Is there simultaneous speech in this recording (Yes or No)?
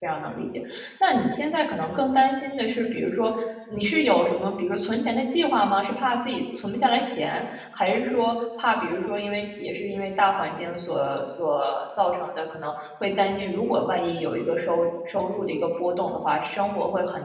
No